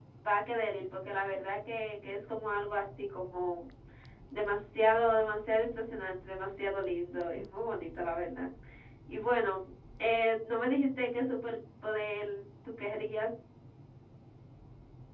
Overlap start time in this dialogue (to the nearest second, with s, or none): none